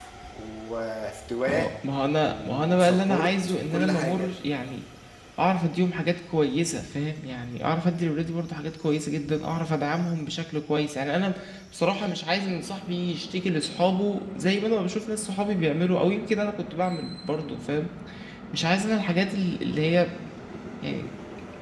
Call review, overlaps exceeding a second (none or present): present